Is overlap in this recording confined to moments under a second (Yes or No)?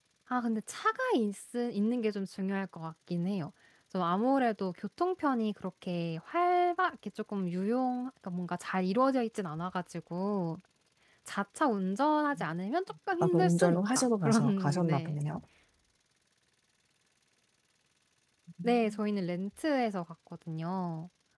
No